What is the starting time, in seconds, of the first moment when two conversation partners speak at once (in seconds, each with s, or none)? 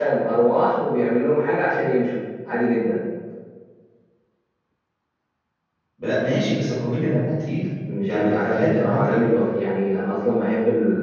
8.1 s